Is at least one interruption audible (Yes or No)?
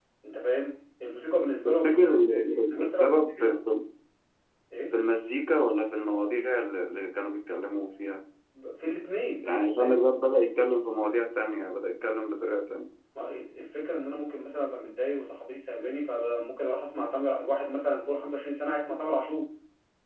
Yes